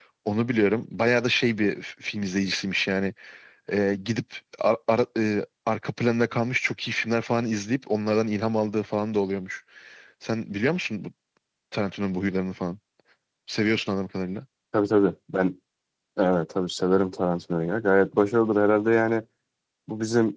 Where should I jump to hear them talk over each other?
none

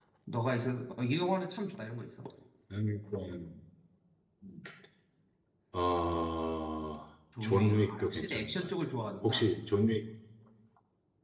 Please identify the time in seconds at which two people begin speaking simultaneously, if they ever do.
7.4 s

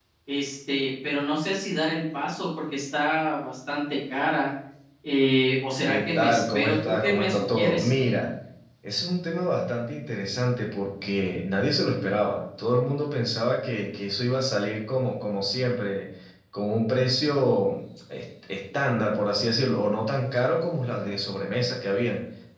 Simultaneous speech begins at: 5.8 s

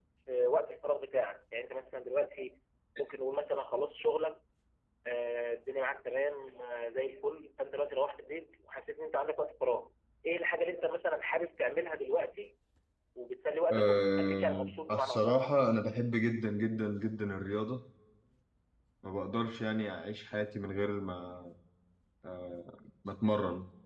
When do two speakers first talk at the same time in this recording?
13.7 s

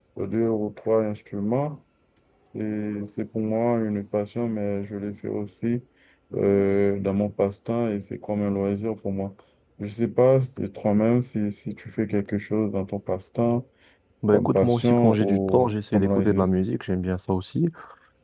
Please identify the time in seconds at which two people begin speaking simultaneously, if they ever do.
14.3 s

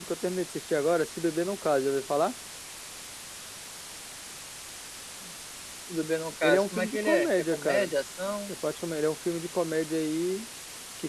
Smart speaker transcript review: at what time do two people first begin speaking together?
6.4 s

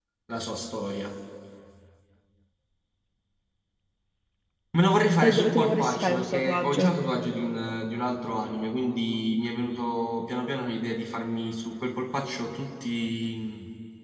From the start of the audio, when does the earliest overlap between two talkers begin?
5.2 s

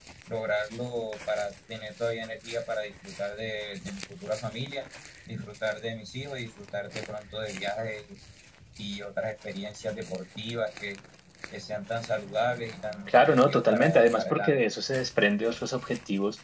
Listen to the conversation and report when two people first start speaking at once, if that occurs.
13.1 s

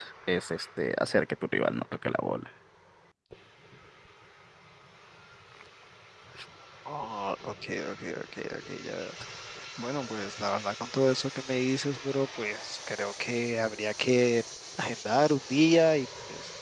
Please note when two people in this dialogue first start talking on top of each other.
none

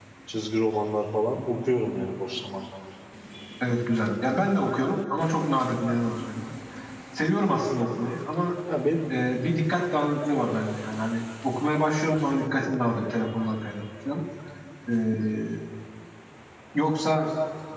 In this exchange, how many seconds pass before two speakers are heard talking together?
none

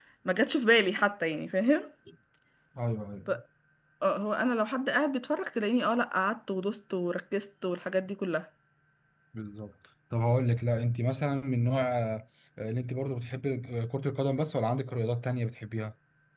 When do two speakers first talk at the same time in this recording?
none

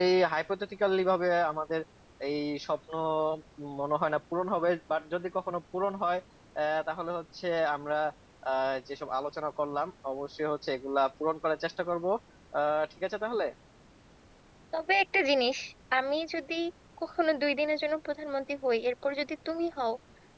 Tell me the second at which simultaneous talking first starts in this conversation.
none

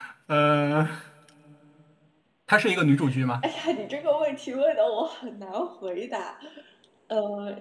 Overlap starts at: none

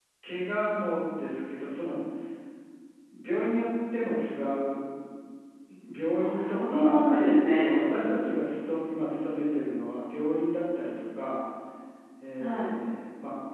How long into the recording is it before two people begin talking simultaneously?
6.2 s

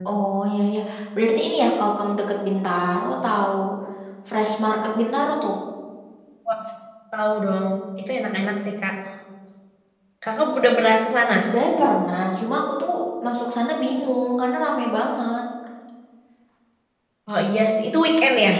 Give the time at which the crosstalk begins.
none

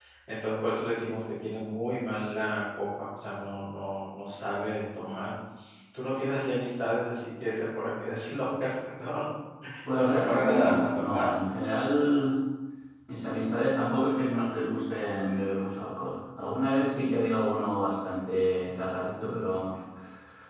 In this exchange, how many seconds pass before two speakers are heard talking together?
9.9 s

